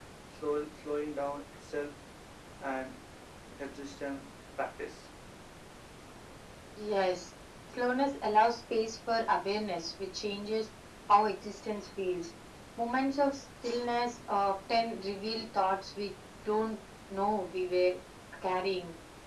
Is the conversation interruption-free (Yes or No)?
Yes